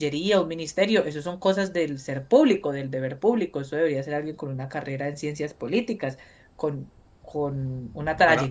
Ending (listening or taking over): listening